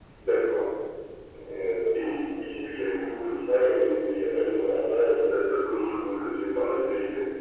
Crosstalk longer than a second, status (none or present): none